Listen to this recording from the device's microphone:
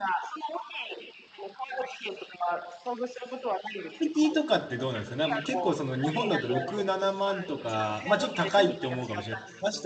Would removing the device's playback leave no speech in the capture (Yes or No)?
No